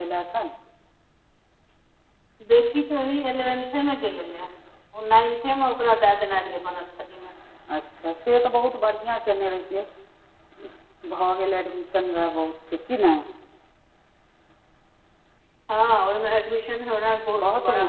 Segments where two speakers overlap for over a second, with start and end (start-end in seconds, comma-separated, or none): none